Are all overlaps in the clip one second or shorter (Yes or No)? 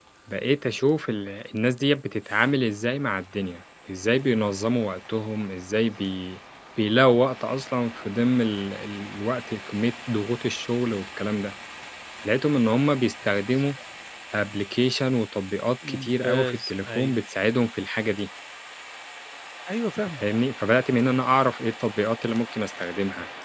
No